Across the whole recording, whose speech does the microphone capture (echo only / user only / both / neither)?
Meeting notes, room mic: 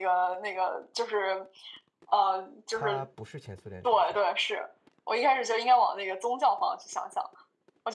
both